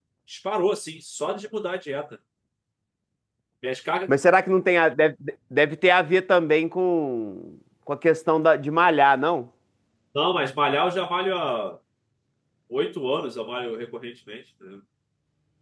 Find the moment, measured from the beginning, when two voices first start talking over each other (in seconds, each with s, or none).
none